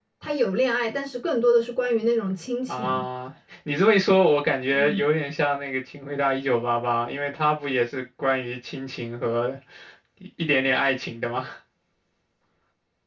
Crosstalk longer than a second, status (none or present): none